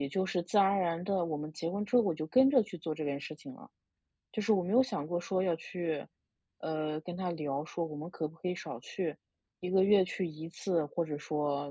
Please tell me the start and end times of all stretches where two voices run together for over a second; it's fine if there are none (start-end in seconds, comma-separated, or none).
none